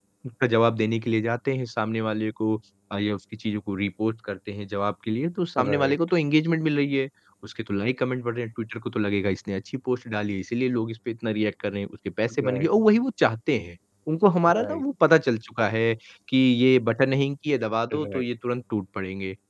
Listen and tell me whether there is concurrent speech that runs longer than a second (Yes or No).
No